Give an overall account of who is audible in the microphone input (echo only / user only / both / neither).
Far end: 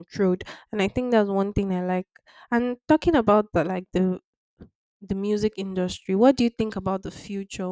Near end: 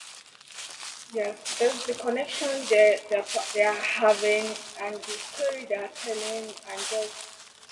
user only